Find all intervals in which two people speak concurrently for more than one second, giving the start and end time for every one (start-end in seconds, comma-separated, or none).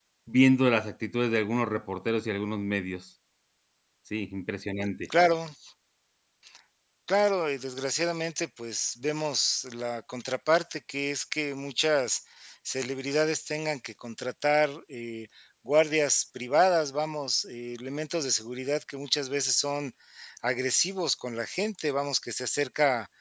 none